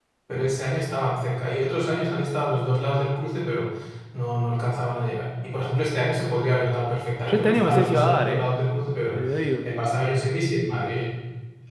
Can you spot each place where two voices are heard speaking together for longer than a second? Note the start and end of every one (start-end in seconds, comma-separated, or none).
7.3-8.5